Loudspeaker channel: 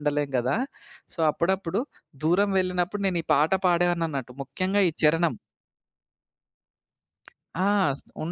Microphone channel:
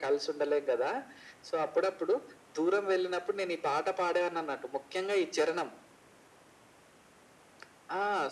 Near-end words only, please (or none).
none